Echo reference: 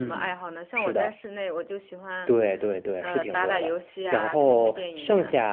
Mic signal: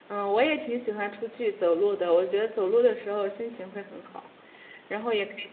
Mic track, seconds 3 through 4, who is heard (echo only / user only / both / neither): user only